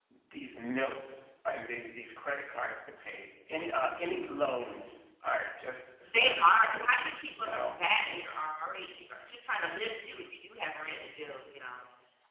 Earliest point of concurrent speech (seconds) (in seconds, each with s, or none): 6.1 s